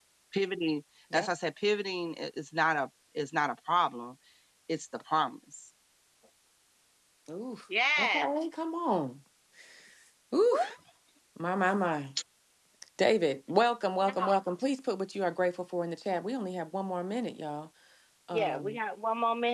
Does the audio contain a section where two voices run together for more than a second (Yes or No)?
No